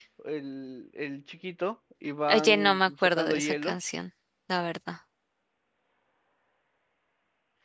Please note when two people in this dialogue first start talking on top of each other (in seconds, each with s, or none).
2.3 s